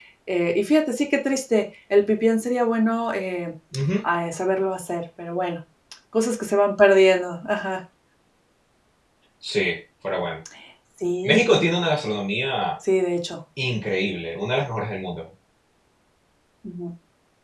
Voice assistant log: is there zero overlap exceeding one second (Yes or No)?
Yes